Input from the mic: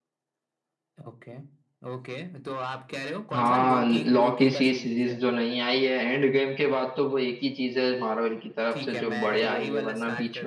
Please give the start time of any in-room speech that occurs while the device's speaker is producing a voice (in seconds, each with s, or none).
3.3 s